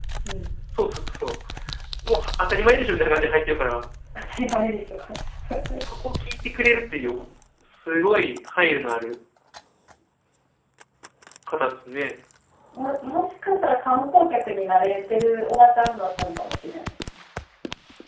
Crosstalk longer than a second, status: none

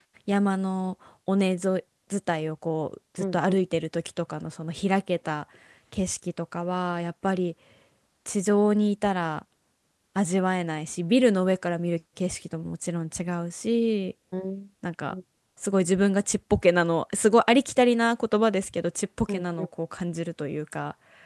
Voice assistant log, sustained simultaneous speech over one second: none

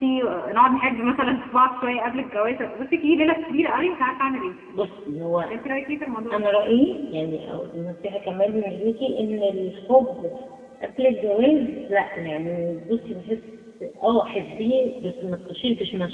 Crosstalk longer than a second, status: none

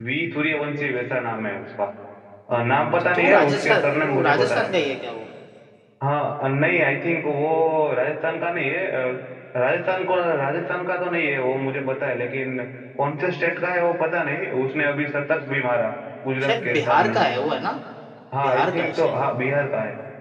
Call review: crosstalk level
present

